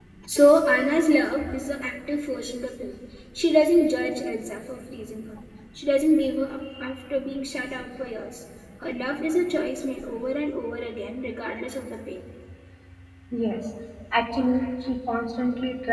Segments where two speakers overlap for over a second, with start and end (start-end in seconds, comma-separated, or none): none